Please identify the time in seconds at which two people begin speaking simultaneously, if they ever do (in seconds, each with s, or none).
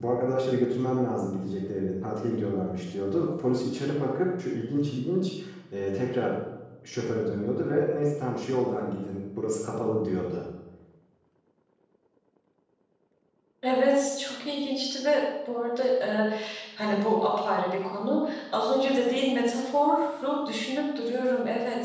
none